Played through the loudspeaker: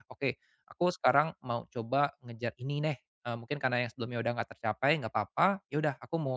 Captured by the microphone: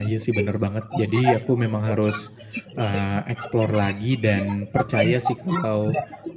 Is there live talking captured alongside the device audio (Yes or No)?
Yes